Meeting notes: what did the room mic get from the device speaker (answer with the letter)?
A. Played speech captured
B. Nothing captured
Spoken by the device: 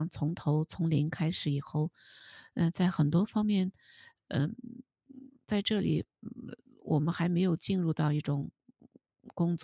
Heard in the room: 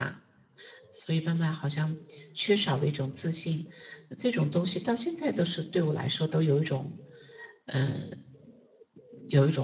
B